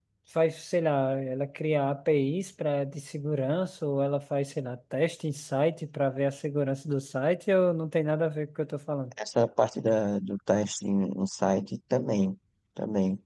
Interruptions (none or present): none